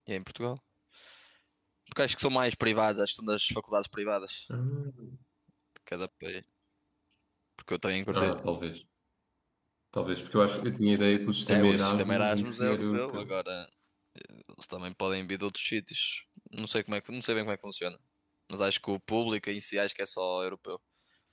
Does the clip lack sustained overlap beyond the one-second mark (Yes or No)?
No